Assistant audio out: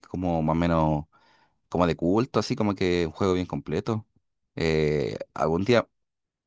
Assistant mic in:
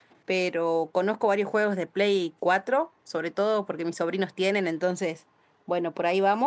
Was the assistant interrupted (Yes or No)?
Yes